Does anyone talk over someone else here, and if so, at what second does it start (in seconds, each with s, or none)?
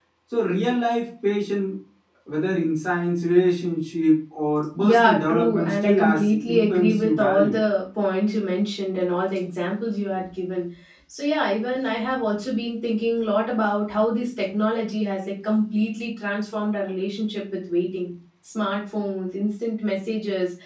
4.8 s